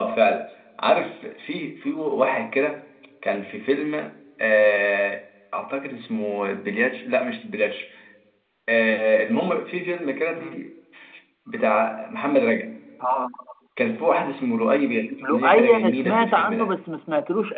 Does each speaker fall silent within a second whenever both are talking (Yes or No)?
No